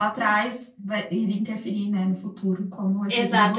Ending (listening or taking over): taking over